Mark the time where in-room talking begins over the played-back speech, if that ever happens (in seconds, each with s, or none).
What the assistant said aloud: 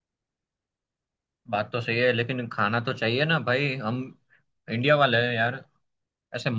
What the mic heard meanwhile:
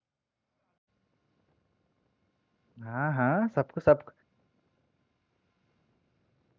2.8 s